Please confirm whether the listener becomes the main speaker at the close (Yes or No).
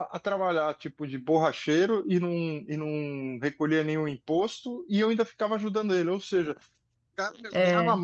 No